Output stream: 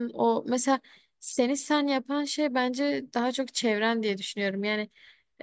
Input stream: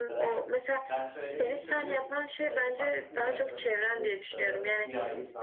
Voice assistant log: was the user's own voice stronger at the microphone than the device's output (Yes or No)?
No